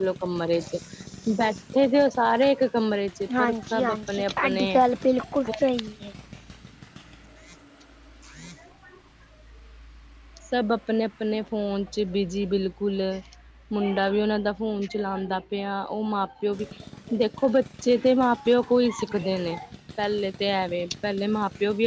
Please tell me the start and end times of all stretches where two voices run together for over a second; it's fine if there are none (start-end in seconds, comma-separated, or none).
3.4-4.8